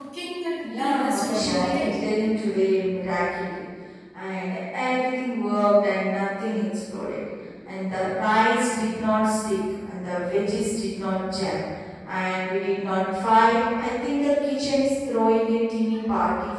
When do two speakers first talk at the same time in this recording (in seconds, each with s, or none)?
0.7 s